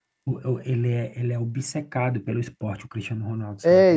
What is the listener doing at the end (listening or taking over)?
taking over